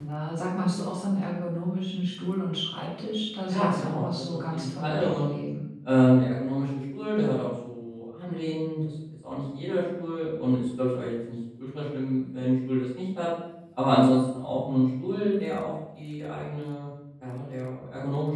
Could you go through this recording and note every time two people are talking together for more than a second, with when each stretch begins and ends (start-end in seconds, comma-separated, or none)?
3.5-5.4